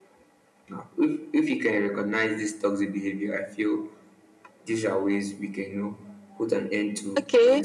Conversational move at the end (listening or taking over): taking over